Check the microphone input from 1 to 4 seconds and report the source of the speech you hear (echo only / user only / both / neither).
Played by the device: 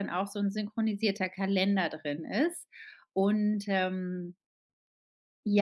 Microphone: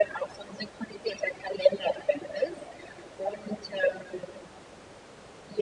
echo only